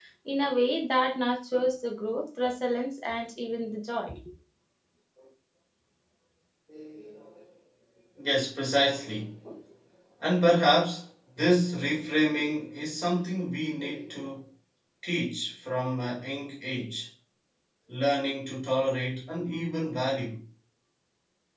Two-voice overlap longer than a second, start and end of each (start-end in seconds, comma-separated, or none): none